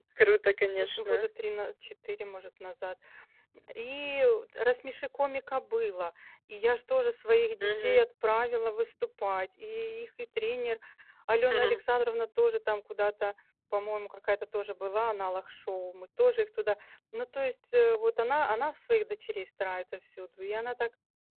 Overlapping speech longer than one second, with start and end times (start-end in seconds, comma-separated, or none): none